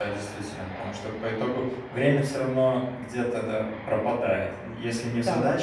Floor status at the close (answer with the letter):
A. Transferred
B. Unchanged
B